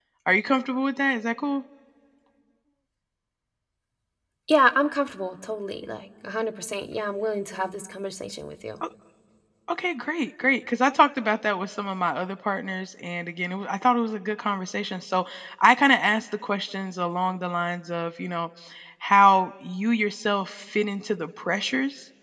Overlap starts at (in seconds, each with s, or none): none